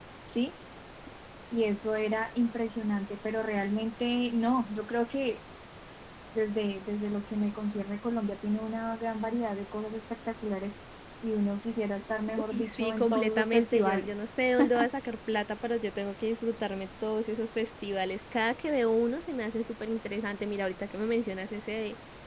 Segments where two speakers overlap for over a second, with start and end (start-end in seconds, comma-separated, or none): 12.5-14.1